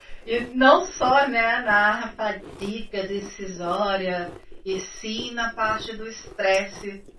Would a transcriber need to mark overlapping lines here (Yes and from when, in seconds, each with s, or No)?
No